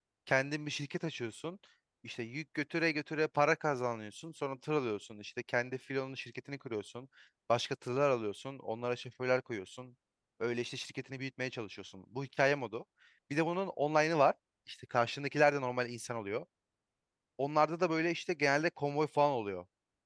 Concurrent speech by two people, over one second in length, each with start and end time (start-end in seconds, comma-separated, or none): none